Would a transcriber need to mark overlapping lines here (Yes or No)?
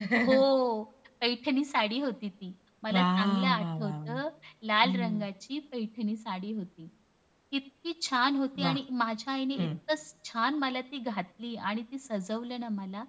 Yes